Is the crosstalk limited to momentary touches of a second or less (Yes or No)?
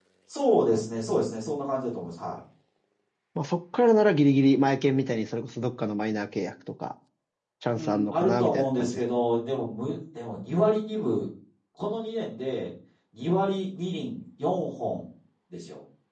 No